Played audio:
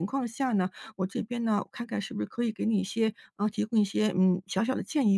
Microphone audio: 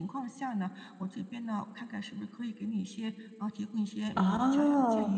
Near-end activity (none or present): present